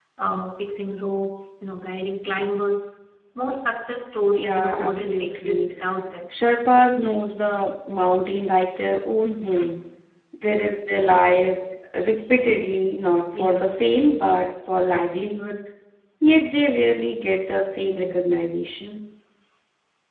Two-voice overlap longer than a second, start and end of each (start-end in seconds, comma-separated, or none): 4.4-5.6